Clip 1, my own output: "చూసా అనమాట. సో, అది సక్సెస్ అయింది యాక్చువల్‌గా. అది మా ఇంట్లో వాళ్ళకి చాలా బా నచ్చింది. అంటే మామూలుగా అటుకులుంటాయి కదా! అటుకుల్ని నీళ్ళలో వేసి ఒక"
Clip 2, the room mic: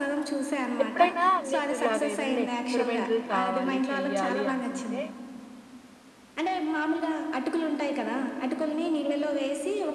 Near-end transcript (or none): ఎప్పుడైనా నీకు ఇలాగ ఏదన్నా ఎక్స్‌పెరిమెంటల్ కావాలి, చెయ్యాలి అనుకుంటే